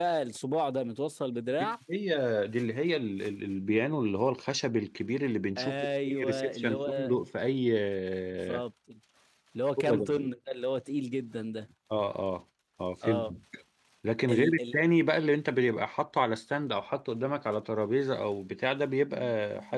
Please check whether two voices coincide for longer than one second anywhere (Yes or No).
Yes